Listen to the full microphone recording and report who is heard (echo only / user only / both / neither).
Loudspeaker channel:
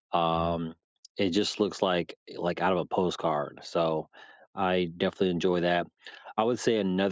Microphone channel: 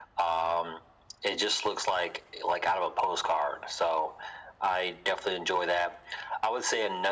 echo only